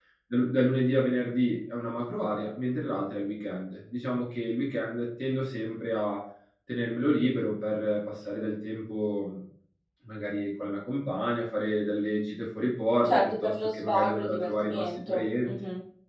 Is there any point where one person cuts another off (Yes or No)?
Yes